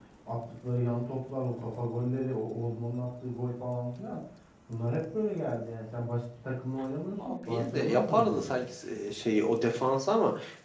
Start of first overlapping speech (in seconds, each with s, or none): 7.2 s